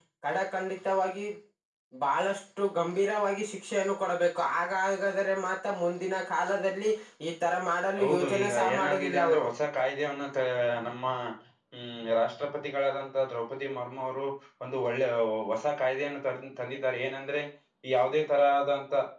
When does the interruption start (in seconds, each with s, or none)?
8.0 s